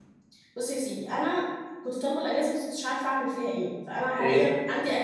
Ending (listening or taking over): listening